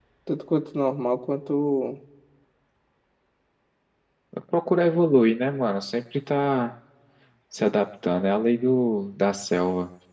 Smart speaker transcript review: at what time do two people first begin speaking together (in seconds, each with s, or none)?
none